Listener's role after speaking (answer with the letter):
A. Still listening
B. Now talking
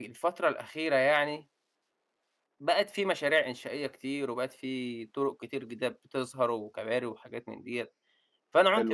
A